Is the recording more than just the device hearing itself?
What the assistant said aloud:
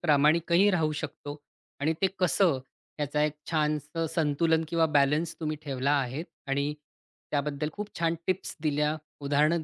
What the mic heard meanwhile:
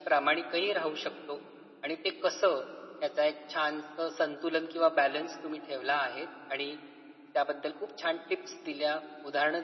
No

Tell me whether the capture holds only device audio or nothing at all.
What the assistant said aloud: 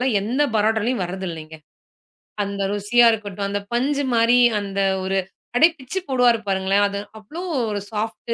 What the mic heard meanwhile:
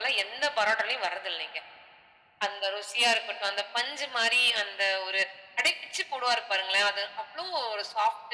Yes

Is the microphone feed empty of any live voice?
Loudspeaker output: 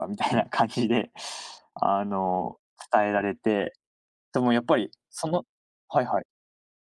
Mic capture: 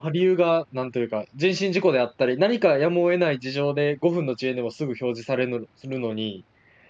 No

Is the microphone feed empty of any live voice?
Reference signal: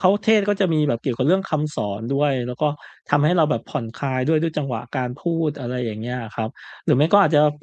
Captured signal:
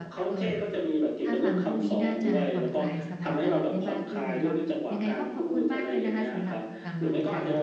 No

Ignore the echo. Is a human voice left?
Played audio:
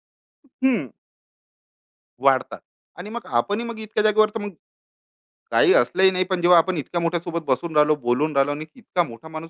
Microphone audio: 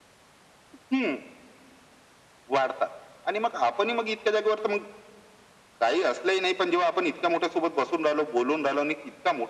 No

